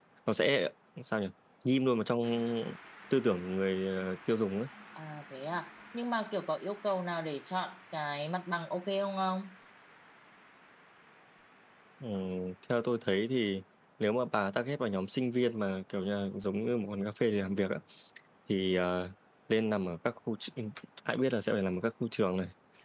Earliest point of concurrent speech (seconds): none

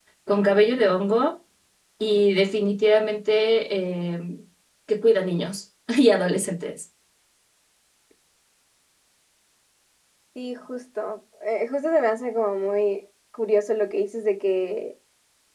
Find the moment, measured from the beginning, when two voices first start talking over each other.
none

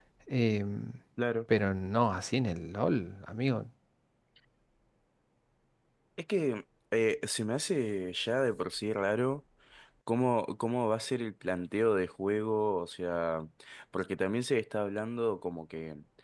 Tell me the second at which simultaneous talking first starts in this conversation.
none

